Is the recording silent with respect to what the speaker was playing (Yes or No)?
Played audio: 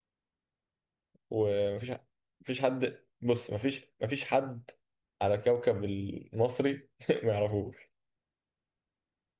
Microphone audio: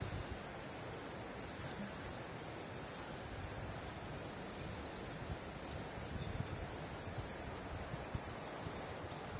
Yes